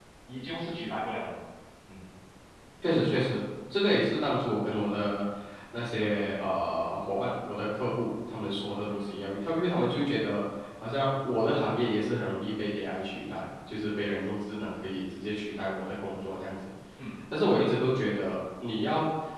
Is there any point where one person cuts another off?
No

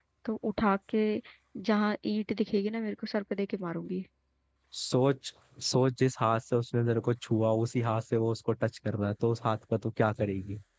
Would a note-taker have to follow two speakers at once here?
No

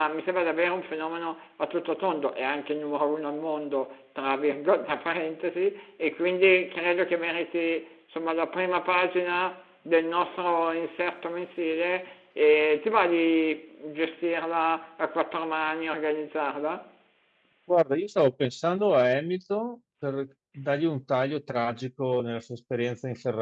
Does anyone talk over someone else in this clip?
No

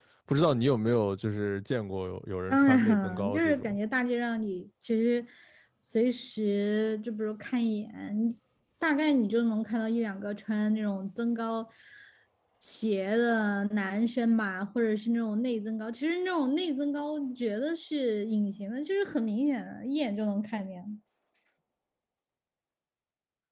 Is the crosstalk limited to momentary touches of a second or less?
No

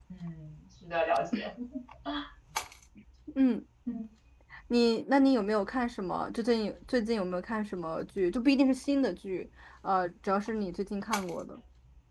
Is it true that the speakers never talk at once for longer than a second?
Yes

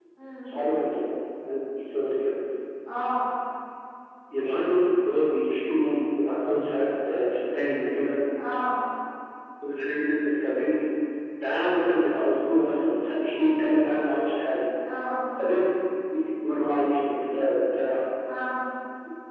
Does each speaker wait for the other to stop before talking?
Yes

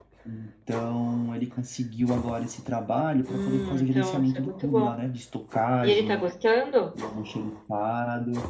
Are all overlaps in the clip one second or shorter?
No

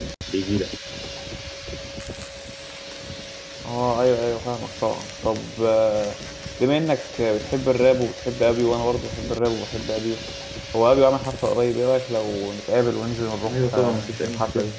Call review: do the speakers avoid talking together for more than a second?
No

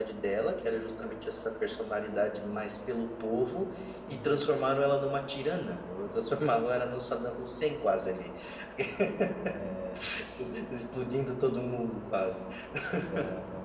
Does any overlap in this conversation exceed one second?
No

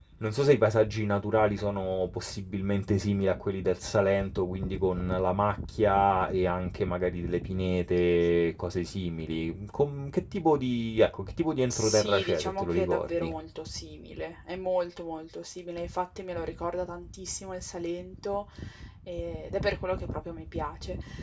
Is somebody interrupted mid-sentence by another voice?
Yes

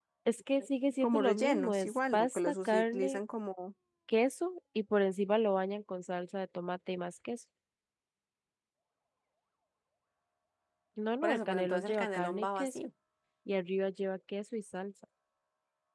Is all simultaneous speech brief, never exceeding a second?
No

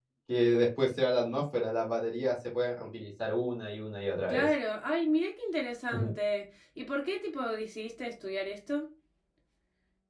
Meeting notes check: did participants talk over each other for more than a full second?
No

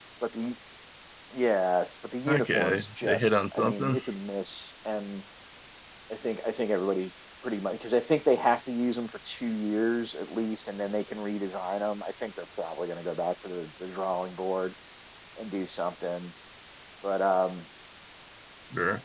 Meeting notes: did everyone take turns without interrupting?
No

